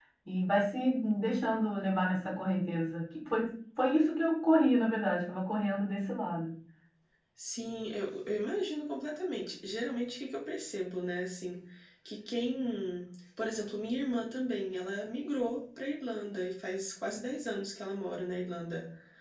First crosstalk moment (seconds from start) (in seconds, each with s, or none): none